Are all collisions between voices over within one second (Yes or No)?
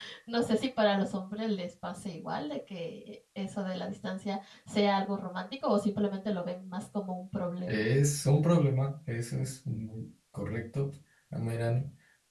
Yes